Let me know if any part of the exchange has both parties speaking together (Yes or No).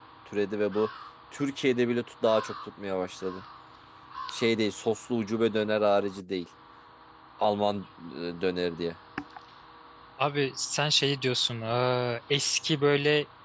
No